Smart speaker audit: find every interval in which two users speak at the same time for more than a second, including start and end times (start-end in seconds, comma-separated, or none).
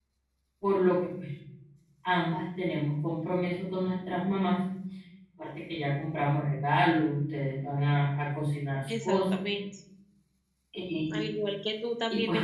none